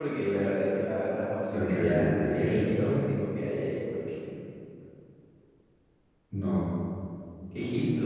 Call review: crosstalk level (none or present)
present